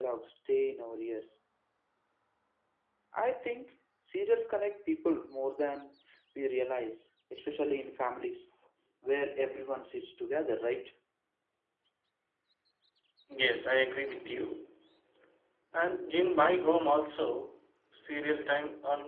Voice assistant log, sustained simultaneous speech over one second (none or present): none